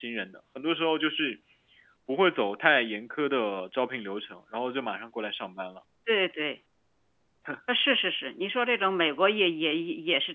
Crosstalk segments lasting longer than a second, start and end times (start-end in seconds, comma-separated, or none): none